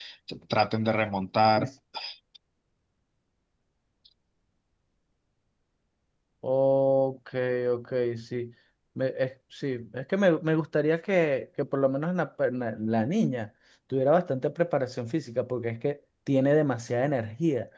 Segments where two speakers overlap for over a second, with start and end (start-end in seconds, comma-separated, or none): none